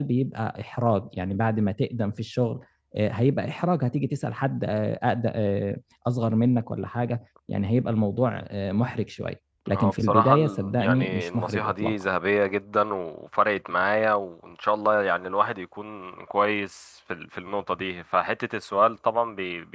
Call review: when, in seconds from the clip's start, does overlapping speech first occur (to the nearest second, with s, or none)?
10 s